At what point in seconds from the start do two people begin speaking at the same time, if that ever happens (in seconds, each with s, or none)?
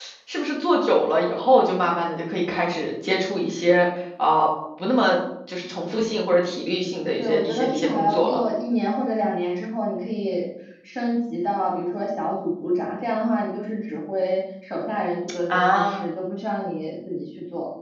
7.2 s